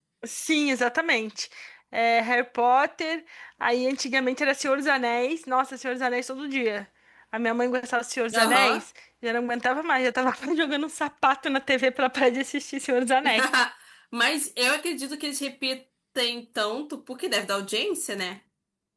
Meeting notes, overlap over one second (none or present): none